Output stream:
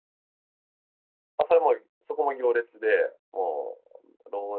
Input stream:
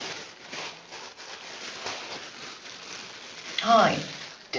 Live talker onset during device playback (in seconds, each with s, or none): 3.6 s